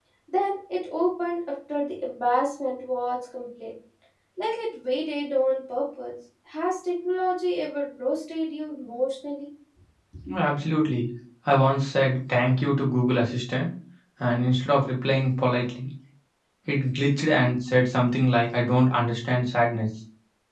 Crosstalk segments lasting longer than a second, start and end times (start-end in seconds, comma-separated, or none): none